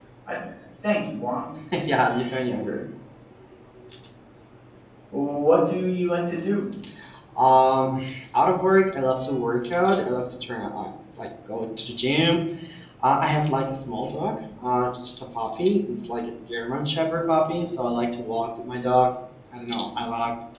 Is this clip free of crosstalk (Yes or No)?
Yes